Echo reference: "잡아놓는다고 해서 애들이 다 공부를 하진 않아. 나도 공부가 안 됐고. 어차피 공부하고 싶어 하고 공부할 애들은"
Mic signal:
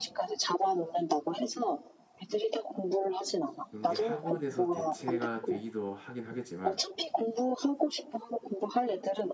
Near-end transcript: 그런 게 학원에서 대체가 되기도 하긴 하겠지만

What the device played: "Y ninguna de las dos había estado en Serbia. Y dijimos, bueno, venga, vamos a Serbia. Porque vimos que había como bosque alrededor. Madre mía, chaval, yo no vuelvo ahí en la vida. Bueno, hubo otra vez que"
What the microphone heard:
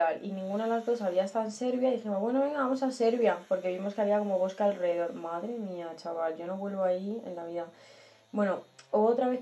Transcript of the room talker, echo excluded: none

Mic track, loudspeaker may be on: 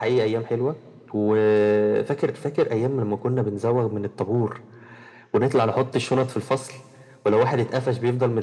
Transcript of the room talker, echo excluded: none

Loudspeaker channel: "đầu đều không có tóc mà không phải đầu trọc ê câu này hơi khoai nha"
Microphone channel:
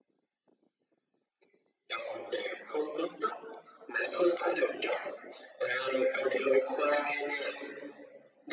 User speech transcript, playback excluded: none

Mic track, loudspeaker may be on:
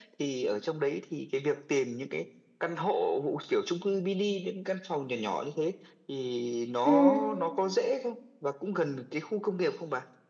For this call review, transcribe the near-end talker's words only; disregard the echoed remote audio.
ừ

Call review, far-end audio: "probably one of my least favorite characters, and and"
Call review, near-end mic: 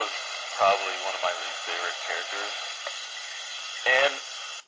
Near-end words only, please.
none

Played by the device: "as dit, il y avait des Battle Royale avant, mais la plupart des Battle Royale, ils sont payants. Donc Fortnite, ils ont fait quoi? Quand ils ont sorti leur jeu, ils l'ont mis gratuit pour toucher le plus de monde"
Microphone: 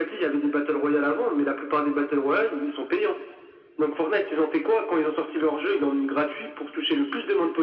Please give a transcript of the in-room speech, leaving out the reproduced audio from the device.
none

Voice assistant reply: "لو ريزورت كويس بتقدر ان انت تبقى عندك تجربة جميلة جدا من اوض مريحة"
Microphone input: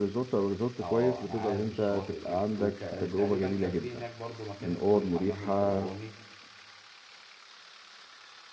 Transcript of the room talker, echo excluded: اه انا عارف الشواطئ دي وتقريبا كان في هناك برضو مكان اسمه الحمام الفرعوني

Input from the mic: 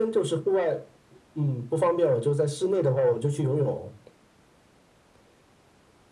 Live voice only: none

